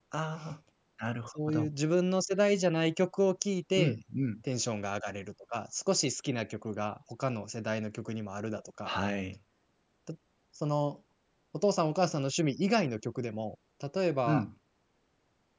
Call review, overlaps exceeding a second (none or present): none